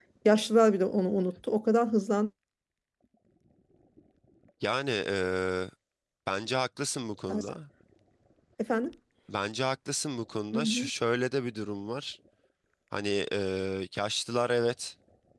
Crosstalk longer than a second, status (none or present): none